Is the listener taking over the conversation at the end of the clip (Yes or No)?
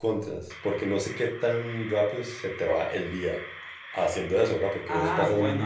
Yes